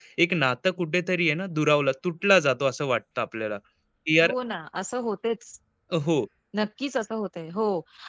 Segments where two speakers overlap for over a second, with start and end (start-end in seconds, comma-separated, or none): none